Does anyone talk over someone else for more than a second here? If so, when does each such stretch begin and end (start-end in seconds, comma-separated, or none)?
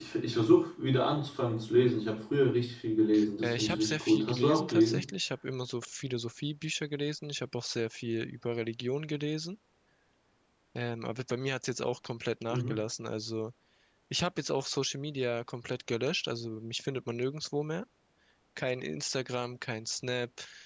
3.4-5.0